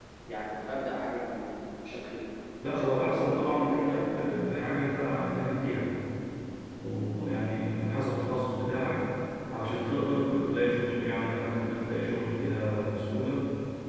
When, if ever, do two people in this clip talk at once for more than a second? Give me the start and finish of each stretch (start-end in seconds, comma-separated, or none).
2.7-4.4